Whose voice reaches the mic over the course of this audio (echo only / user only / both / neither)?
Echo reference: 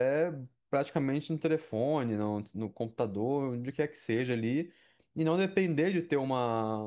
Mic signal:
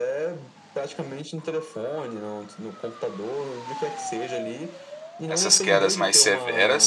both